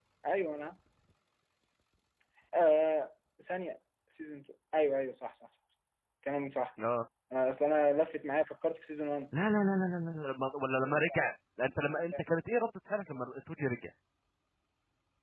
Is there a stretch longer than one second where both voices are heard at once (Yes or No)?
No